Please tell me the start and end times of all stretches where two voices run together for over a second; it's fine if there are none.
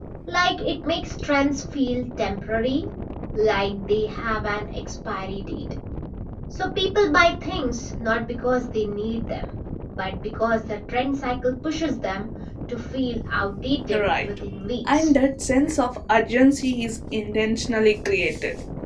none

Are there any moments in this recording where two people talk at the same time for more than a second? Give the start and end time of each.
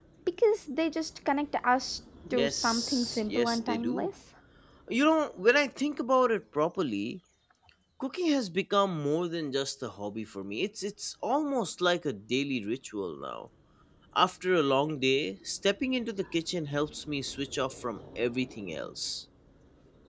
2.3-4.1

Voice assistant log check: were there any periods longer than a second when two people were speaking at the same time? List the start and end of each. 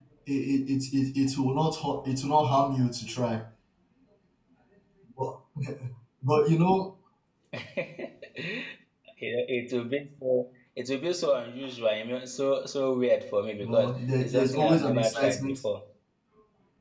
13.6-15.6

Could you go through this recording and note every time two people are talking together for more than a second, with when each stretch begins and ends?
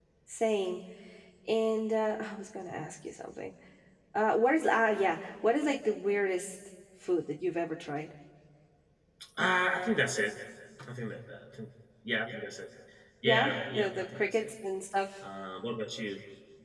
13.2-14.5

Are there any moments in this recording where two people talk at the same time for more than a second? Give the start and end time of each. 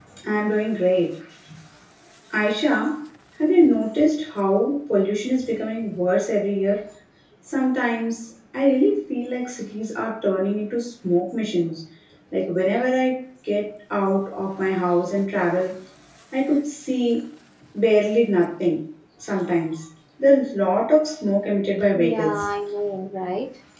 none

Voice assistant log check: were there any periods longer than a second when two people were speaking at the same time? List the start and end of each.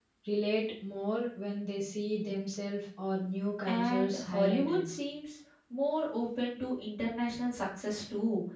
3.6-4.9

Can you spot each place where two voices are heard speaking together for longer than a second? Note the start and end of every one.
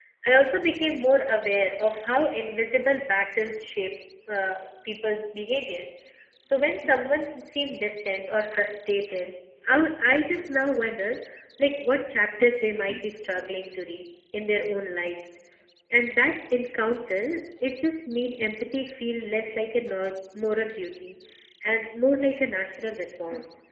none

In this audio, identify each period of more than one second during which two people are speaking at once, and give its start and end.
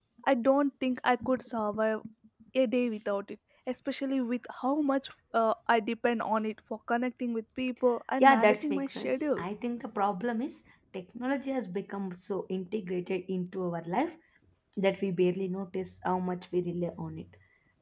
8.2-9.4

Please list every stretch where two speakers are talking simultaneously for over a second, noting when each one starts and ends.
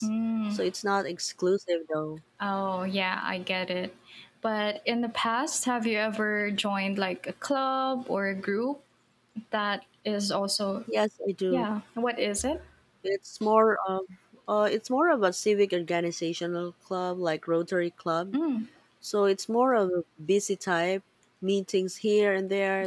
none

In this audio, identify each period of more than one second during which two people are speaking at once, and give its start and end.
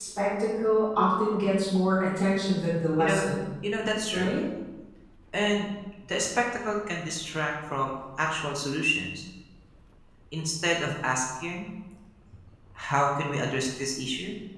none

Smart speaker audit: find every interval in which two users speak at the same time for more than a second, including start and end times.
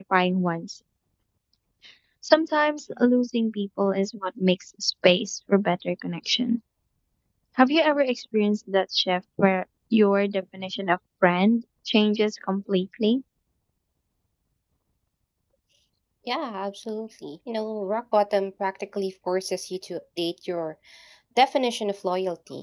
none

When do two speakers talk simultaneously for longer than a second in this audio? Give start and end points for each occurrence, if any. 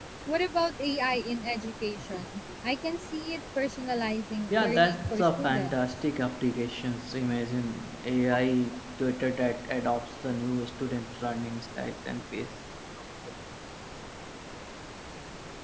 4.5-5.8

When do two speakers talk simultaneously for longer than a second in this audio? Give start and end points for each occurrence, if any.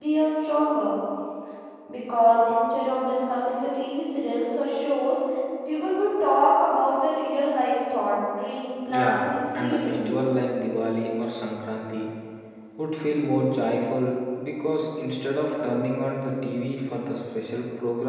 8.9-10.2

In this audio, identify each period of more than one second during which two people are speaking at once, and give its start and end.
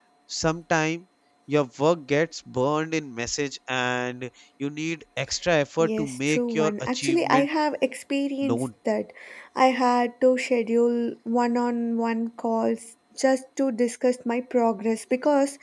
5.8-7.5

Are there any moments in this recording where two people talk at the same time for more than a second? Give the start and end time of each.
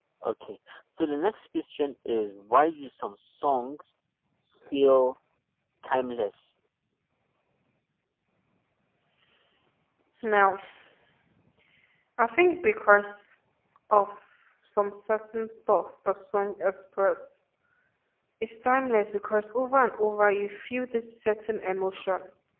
none

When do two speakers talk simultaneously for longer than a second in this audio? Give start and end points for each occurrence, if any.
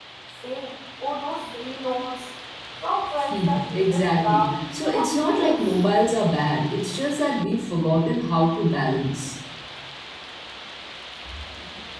3.3-5.8

